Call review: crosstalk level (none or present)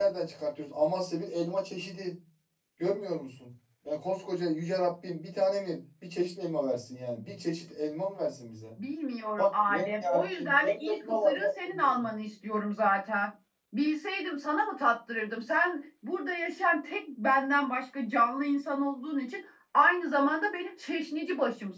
present